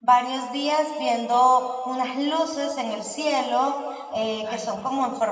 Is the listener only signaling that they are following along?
Yes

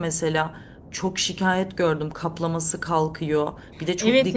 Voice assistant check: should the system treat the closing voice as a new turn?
No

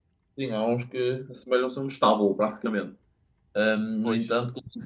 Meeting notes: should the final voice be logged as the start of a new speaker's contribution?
No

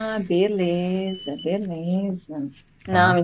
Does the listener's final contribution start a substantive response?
No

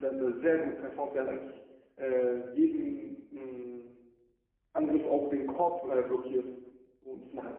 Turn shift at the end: No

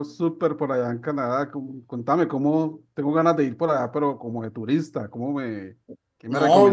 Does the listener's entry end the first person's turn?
Yes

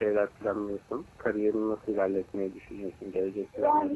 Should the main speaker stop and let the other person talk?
Yes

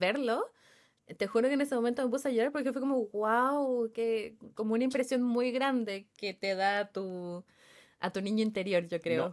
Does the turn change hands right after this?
Yes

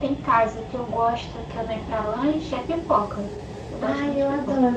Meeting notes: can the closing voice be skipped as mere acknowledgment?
No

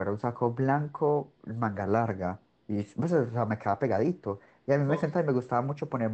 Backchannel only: Yes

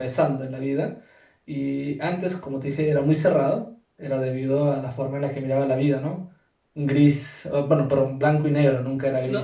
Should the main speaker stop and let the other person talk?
Yes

